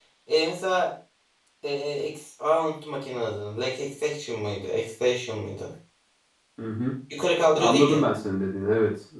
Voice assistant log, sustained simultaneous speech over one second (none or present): none